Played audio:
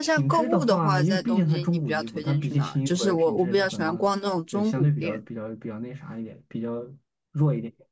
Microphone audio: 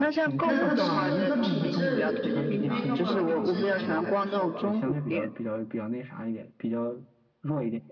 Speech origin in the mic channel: both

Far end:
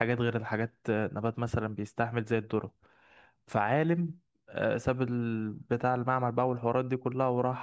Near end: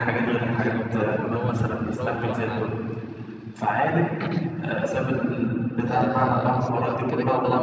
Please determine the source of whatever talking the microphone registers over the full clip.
both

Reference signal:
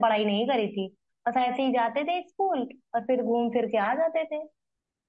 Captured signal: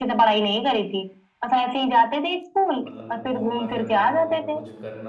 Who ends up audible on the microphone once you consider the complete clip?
both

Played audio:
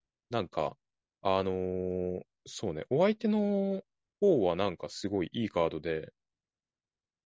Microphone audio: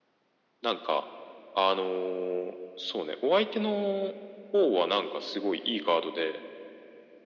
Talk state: echo only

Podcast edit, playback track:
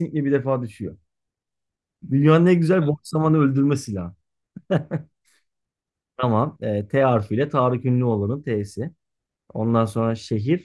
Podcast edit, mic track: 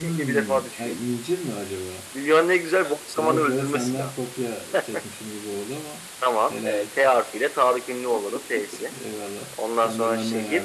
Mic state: both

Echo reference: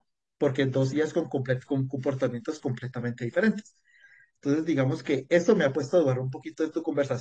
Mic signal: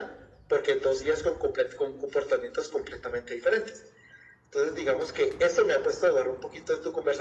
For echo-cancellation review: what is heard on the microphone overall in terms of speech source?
echo only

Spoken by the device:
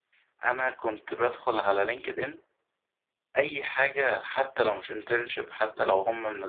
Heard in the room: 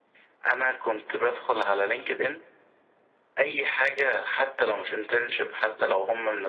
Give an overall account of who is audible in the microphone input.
echo only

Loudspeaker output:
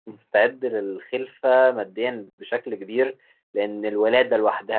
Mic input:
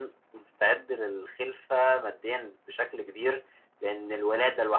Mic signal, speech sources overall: echo only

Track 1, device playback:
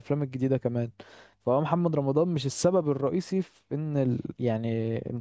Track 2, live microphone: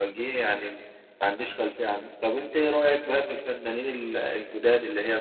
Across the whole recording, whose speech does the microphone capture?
user only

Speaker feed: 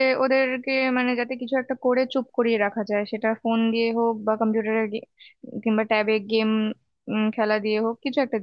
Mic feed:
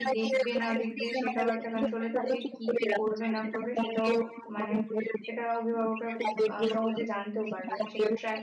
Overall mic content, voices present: both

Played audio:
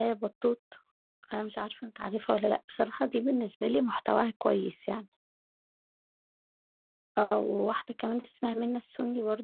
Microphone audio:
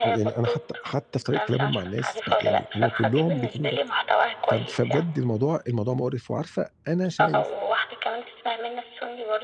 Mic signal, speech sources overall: both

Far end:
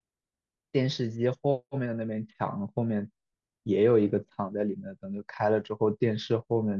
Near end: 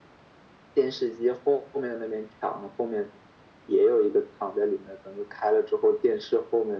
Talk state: echo only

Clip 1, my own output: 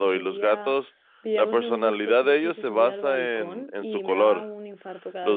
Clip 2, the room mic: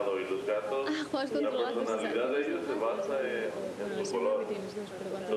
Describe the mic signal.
both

